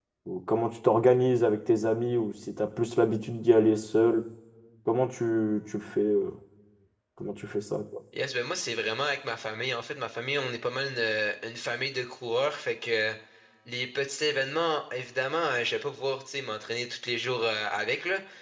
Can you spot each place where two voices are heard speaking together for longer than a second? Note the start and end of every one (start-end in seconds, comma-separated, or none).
none